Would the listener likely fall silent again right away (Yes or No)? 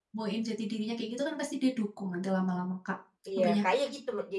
No